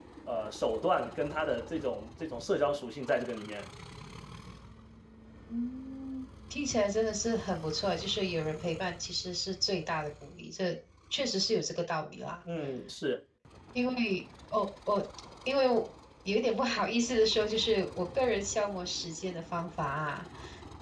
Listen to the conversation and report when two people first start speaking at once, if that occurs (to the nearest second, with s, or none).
none